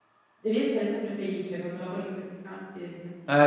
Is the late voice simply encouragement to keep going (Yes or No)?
No